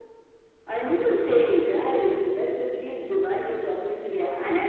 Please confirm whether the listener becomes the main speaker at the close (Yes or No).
Yes